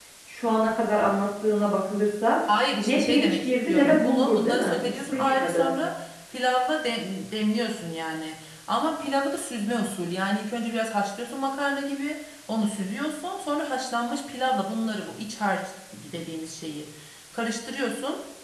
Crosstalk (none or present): present